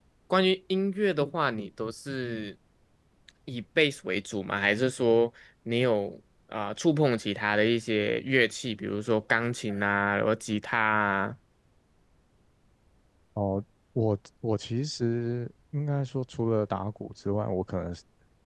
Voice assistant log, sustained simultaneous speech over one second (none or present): none